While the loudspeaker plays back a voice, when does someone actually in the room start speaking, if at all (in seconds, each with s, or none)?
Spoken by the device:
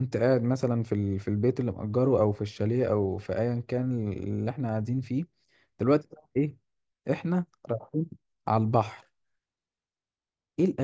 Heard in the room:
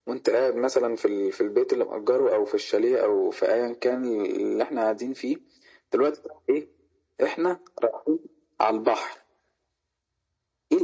none